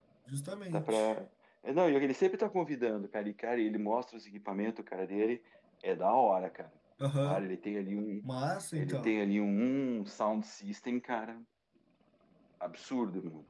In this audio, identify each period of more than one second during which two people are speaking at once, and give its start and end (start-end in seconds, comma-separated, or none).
none